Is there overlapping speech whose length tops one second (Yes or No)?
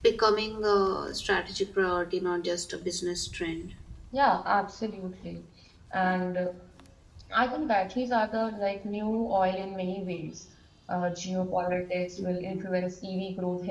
No